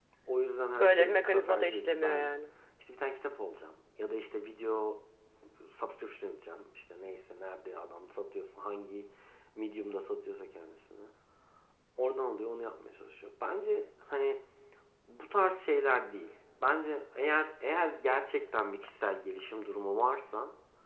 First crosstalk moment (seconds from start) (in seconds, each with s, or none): 0.8 s